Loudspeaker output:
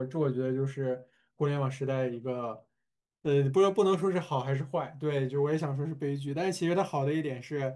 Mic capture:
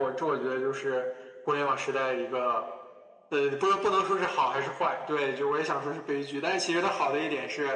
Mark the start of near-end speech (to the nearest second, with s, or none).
none